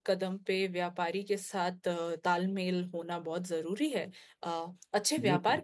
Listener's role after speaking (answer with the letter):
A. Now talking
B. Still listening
B